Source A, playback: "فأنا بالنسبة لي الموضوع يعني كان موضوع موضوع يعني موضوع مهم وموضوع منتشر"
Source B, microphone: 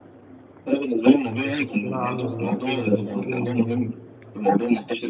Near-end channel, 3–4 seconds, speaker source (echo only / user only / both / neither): both